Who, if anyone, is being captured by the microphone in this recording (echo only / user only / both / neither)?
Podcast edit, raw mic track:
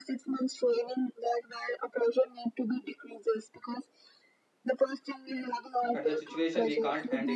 both